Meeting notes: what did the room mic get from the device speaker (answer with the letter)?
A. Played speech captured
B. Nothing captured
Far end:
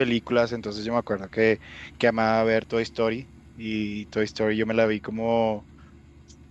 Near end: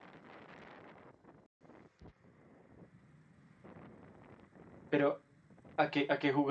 B